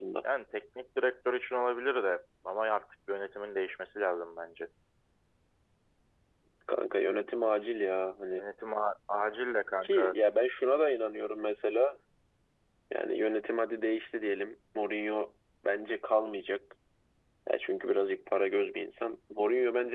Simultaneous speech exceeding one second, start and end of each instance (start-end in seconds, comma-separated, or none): none